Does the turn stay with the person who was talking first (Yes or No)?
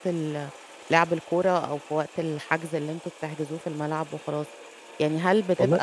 Yes